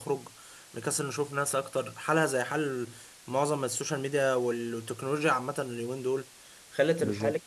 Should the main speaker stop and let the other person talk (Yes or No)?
No